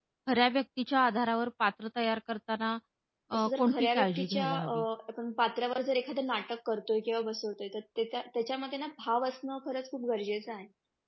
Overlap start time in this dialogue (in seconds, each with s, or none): 3.3 s